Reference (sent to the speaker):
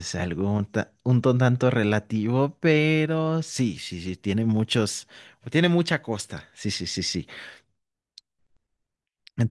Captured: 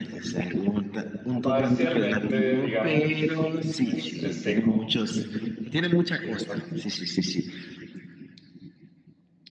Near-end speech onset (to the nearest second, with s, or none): 1 s